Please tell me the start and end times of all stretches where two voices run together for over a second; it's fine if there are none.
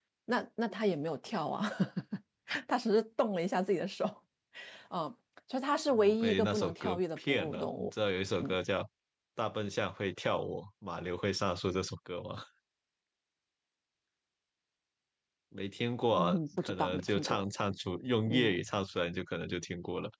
6.0-7.9, 16.1-17.4

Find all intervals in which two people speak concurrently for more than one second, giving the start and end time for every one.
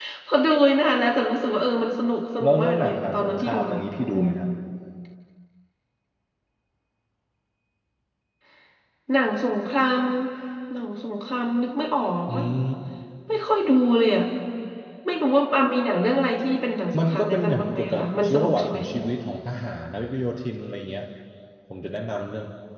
2.4-4.2, 17.0-18.8

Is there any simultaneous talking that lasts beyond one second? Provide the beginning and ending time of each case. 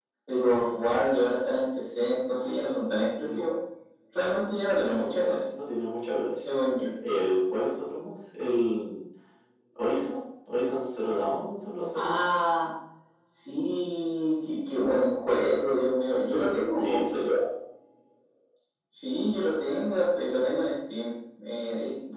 none

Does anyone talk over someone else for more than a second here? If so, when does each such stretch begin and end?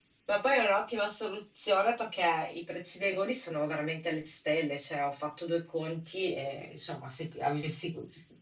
none

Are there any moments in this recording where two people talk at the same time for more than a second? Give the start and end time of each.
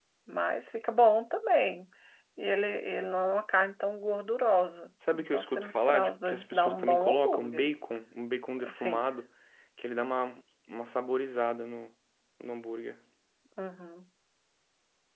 5.1-7.6

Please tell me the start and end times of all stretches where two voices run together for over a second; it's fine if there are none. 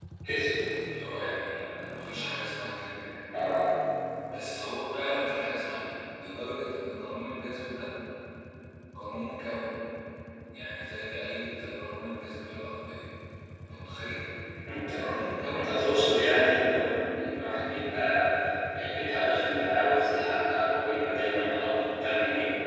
15.5-16.8

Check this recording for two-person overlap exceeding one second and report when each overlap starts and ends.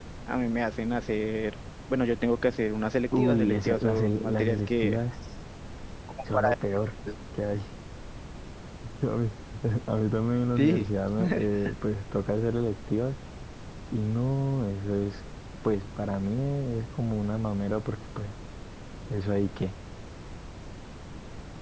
3.2-5.0

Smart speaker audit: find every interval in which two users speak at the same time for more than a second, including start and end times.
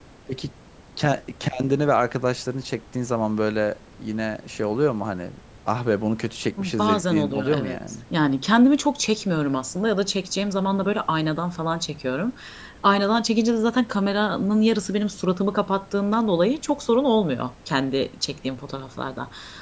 6.6-7.8

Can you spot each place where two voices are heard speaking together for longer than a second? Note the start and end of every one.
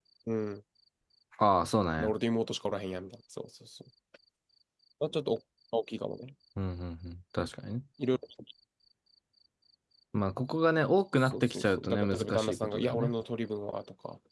11.2-13.1

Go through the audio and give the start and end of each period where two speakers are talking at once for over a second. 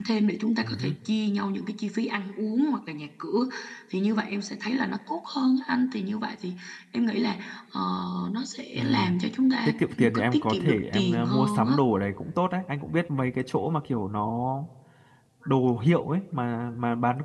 9.6-11.8

